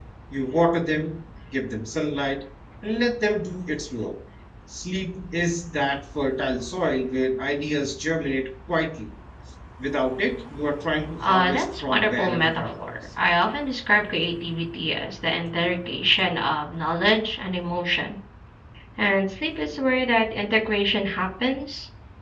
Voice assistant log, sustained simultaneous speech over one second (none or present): present